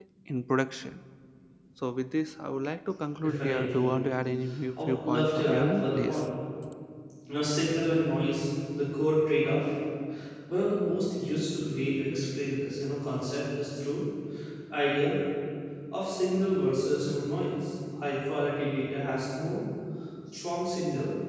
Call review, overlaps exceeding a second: present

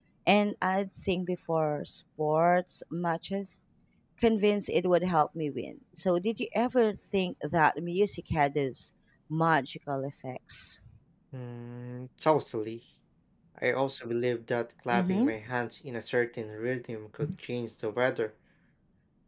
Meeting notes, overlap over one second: none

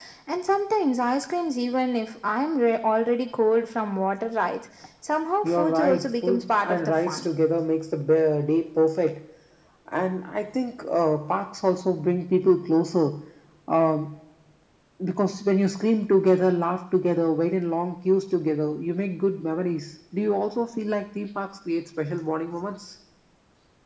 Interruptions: present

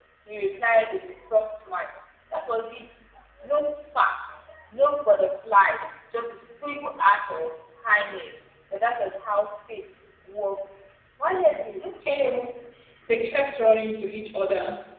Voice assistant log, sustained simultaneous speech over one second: none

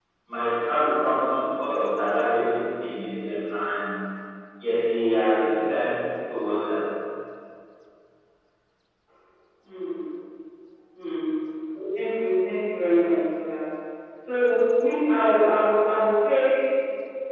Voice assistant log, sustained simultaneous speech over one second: none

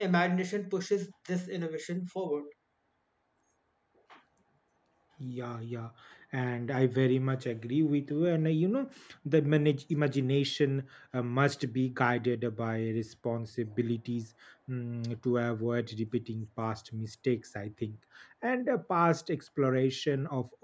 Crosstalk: none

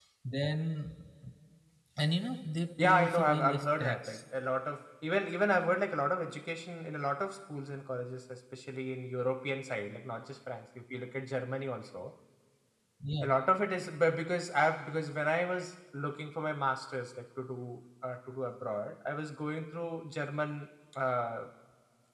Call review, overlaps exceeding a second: present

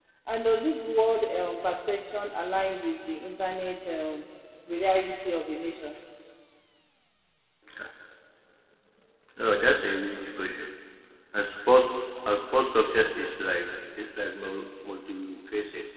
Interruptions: none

